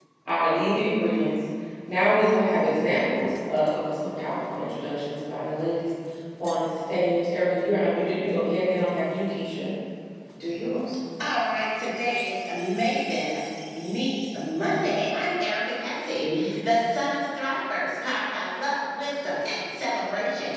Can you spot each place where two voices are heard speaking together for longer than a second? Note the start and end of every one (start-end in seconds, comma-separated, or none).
none